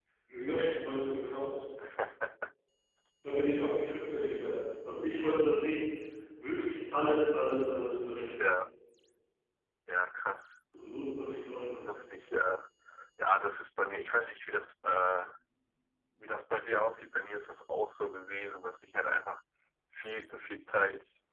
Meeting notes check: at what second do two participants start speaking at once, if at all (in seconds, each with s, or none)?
none